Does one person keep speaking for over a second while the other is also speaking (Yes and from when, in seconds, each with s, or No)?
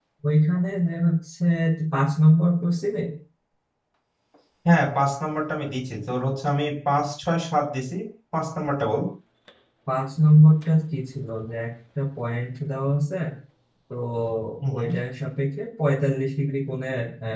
No